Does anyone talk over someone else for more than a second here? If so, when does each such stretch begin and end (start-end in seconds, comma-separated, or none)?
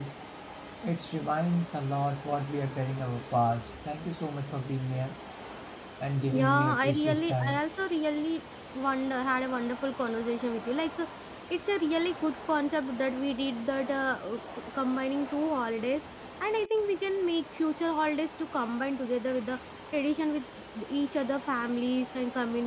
6.3-7.6